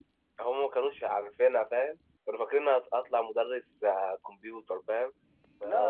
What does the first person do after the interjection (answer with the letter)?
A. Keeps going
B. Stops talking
A